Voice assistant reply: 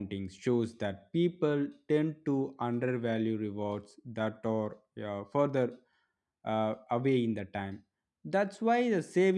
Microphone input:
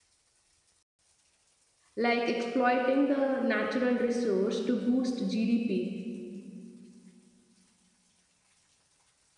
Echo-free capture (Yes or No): Yes